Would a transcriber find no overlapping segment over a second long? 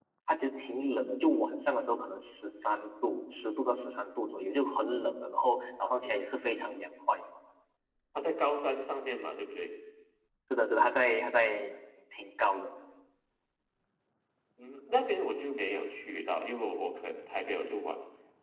Yes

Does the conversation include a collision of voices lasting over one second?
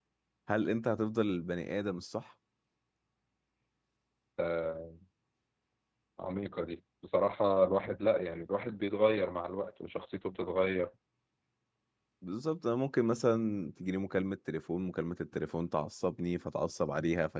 No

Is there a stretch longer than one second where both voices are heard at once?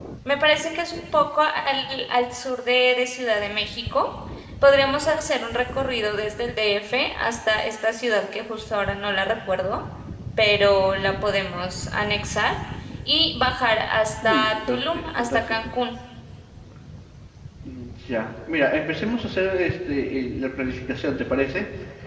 Yes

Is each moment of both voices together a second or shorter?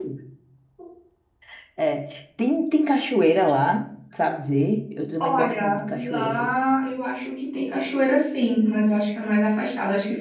No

